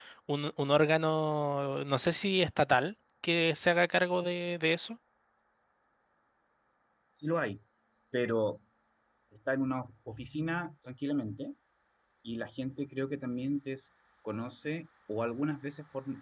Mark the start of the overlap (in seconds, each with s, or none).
none